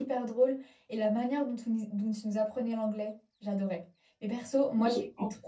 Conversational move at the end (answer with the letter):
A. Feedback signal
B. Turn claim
A